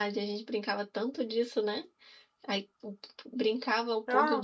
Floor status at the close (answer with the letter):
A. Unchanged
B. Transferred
A